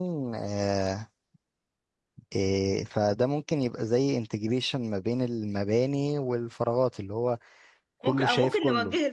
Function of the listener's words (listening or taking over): taking over